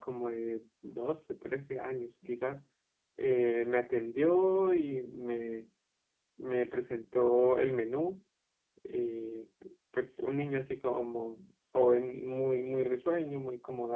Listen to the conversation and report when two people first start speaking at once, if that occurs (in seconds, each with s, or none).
none